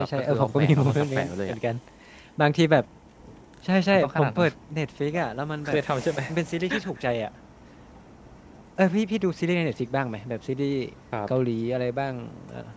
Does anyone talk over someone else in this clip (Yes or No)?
Yes